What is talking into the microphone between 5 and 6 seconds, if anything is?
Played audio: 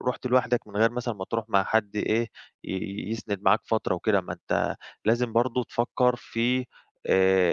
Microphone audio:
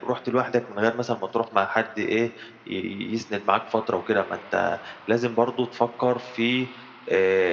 echo only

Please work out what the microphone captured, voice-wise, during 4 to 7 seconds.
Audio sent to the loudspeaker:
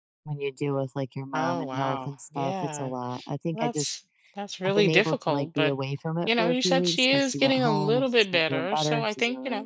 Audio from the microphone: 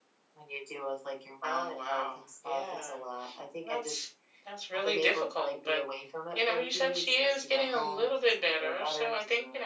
echo only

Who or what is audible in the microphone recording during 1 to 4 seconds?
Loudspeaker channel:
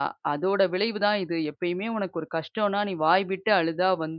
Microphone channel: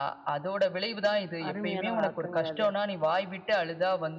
both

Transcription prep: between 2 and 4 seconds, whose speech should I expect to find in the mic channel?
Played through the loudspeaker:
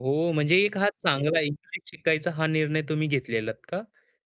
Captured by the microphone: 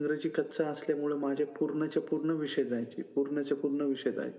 user only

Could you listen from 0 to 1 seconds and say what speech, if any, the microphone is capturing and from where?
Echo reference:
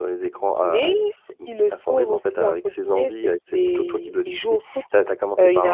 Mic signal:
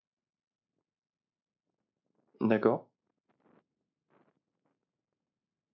neither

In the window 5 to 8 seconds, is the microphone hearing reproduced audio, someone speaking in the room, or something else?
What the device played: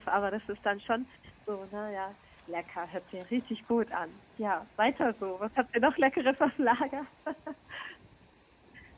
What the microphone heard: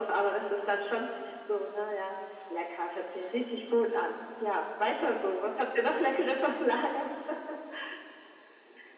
echo only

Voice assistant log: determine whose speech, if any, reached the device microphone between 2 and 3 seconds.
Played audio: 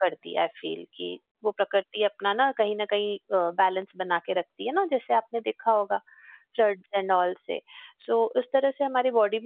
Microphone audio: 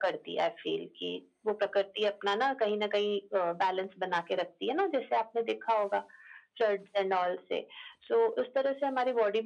echo only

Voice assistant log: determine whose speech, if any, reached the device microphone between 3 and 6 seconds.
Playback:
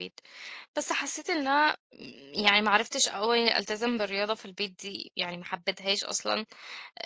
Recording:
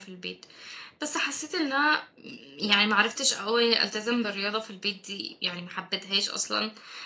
echo only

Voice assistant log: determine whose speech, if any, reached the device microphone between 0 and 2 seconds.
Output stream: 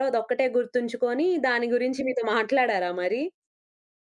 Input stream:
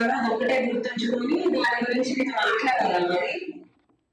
echo only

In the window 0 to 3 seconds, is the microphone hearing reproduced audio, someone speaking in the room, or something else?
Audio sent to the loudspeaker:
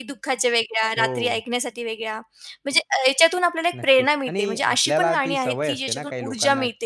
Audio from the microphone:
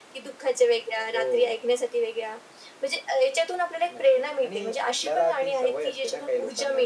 echo only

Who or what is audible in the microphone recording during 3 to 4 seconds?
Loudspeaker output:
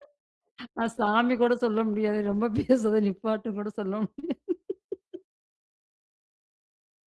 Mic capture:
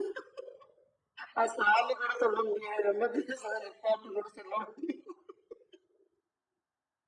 echo only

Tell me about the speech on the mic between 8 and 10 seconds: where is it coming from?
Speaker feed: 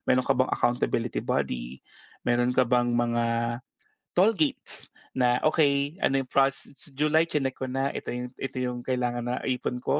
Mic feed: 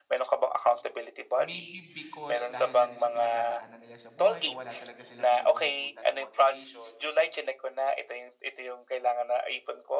echo only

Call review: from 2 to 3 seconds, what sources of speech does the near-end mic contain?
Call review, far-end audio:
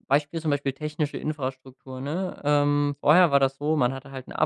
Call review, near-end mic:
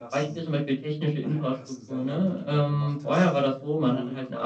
both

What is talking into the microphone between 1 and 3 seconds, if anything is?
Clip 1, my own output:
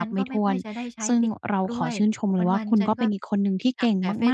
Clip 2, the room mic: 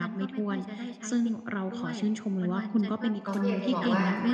echo only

